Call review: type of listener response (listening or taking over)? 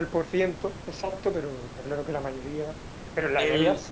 listening